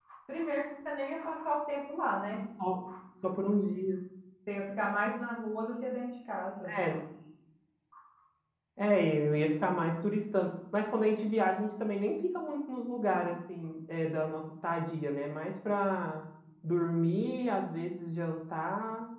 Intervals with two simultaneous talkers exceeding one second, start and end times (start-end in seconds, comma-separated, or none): none